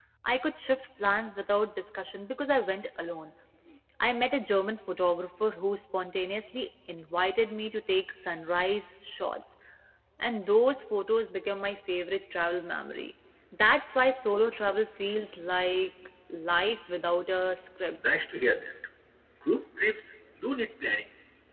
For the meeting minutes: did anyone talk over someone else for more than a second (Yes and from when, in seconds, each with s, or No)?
No